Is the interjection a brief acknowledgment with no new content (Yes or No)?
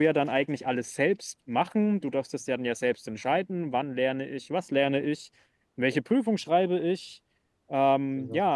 Yes